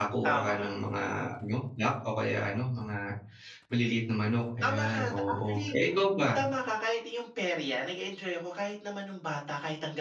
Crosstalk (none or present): present